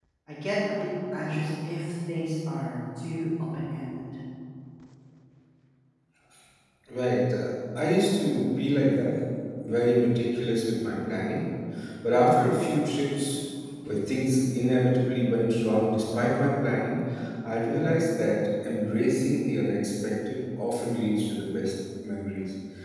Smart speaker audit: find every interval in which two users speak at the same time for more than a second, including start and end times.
none

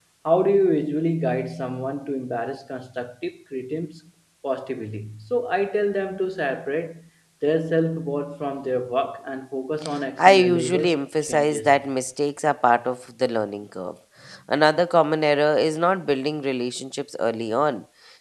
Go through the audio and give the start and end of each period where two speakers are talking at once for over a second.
10.2-11.8

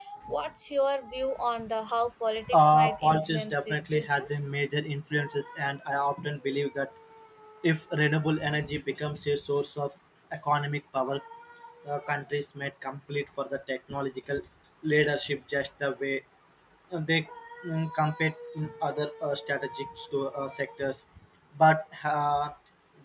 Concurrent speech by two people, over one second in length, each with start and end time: 2.5-4.2

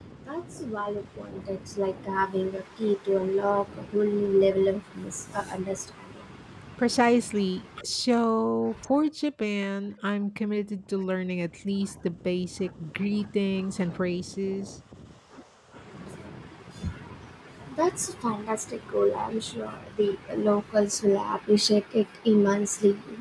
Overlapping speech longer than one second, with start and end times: none

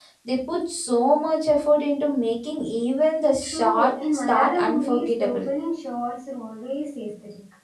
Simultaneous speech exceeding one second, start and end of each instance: 3.4-5.4

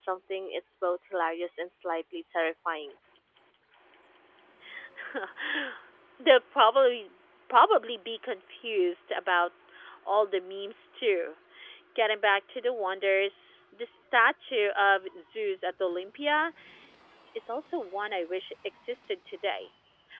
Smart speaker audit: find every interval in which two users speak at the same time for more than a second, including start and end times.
none

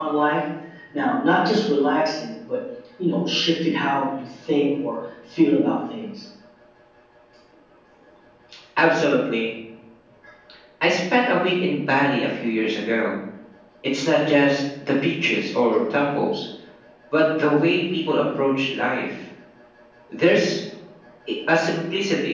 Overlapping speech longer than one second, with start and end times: none

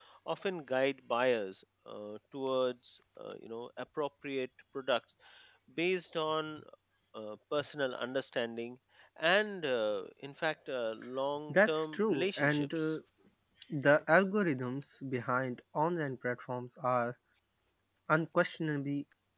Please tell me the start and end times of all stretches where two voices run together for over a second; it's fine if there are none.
11.5-12.9

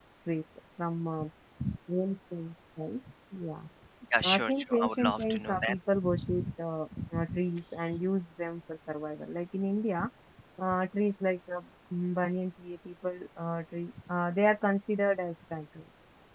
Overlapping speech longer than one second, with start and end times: 4.3-5.7

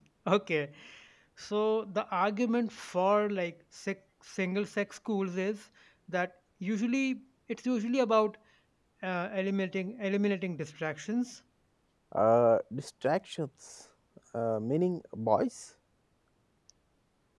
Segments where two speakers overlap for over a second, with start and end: none

